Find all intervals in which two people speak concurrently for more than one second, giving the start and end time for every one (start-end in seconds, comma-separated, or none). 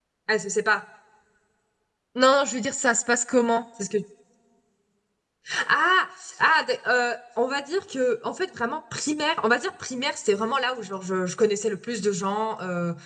none